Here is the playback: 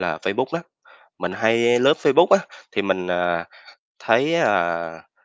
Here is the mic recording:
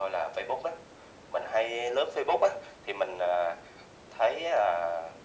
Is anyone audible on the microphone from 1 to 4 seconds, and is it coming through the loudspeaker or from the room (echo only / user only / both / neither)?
echo only